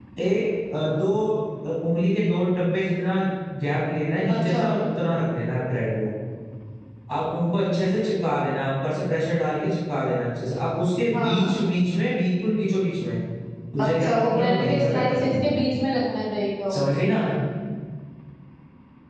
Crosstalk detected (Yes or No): Yes